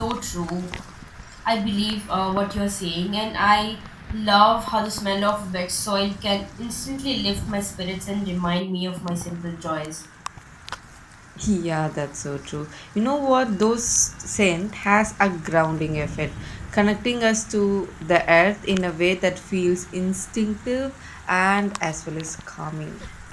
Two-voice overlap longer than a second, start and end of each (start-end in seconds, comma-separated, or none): none